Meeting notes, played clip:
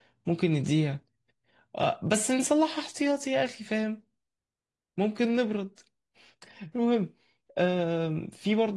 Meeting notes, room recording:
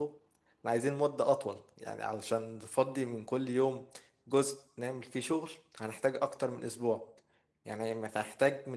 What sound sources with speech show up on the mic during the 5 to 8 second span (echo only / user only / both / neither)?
user only